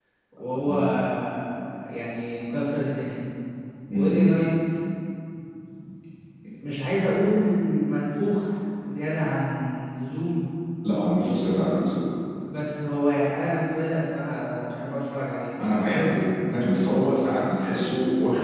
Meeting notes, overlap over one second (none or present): none